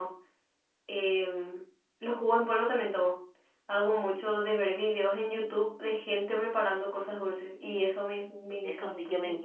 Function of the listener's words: taking over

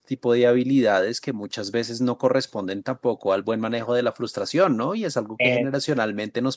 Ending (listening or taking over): listening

